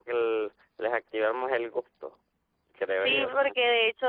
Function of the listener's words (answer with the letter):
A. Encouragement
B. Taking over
B